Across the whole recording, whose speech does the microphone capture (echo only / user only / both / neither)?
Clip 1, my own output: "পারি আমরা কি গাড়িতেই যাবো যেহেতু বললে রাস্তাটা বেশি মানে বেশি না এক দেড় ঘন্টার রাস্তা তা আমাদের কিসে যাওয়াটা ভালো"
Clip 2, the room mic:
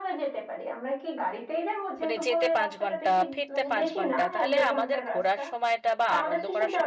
both